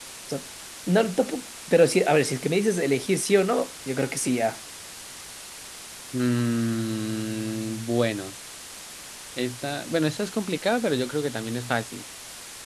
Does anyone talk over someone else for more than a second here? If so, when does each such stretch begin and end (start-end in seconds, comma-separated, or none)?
none